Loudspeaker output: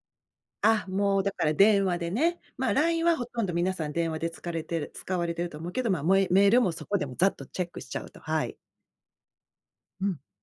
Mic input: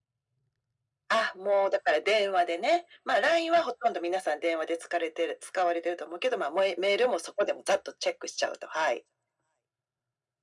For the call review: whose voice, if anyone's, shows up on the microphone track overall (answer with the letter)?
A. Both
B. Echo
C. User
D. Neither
B